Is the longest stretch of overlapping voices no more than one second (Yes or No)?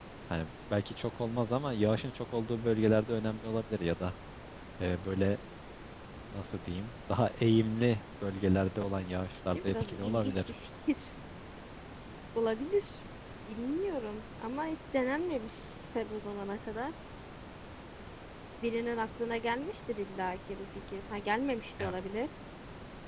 No